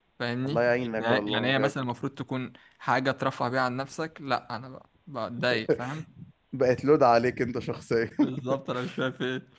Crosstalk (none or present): present